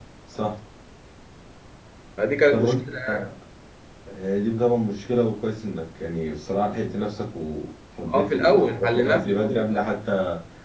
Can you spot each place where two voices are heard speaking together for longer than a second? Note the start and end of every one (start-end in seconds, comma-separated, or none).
8.1-9.8